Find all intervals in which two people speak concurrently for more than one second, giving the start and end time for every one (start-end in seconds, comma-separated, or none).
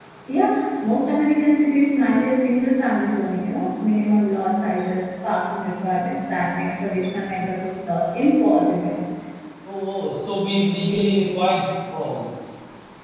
none